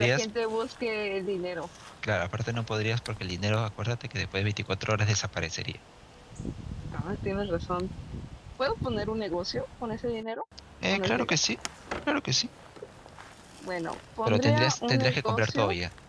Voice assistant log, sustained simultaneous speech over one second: present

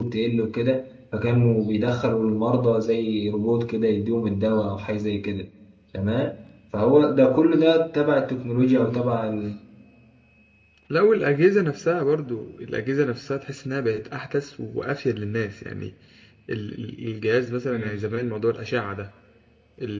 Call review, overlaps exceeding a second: none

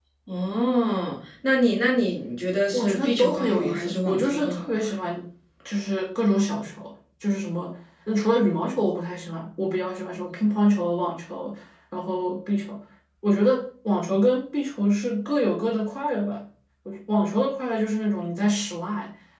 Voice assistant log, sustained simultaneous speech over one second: present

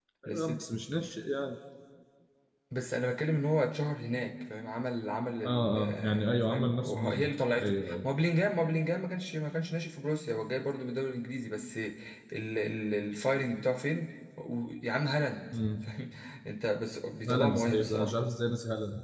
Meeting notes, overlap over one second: present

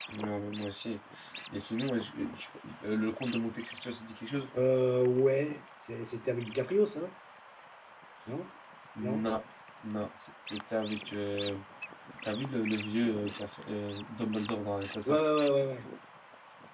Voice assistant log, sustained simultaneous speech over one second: none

